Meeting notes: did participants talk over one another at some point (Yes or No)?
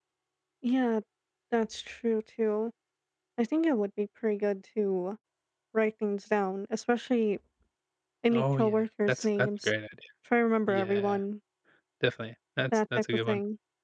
Yes